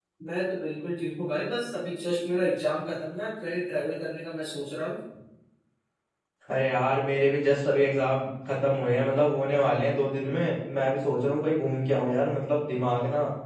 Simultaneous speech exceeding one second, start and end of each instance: none

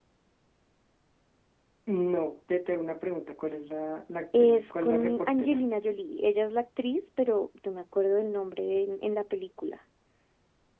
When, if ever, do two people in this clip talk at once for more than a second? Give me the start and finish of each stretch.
4.4-5.6

